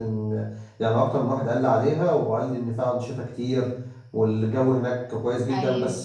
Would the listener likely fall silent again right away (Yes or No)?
Yes